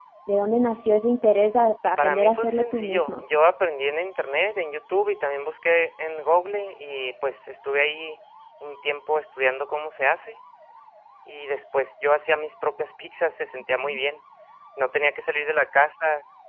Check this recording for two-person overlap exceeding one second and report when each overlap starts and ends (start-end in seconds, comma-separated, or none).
2.0-3.2